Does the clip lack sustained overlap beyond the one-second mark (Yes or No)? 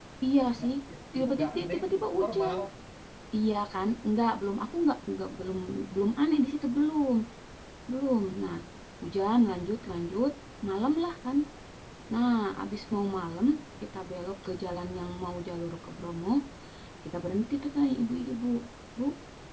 No